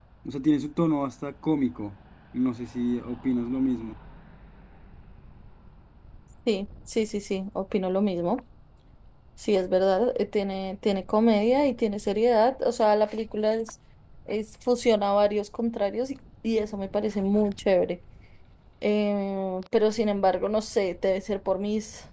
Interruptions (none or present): none